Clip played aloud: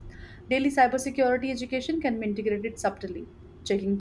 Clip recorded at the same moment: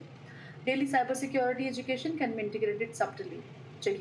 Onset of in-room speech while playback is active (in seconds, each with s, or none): none